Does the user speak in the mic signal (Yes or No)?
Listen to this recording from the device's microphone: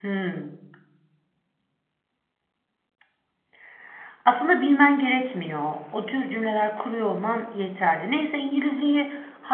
Yes